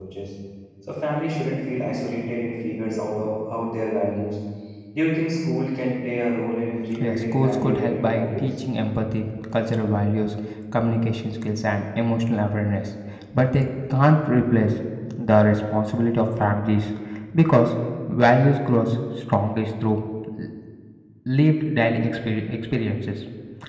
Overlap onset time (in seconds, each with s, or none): 7.0 s